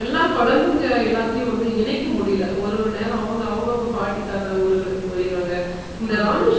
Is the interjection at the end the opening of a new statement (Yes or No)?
No